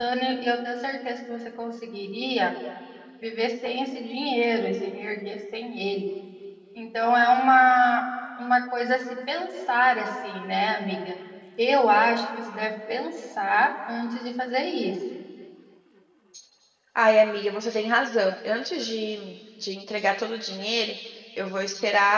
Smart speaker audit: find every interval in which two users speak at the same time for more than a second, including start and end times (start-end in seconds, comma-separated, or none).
none